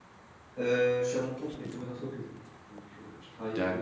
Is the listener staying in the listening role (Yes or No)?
No